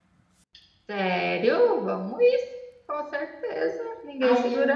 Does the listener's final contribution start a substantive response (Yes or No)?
Yes